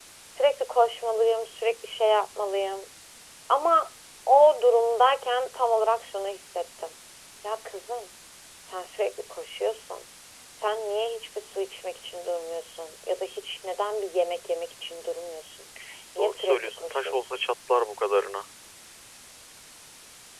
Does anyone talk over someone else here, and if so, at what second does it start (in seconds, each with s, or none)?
16.2 s